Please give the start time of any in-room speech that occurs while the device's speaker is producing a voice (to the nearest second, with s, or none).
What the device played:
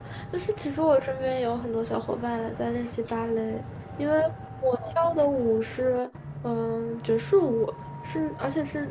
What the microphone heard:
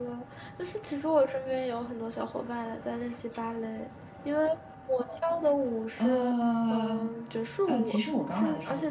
6 s